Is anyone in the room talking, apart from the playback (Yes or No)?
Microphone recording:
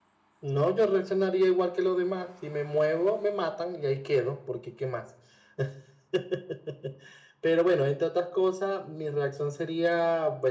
Yes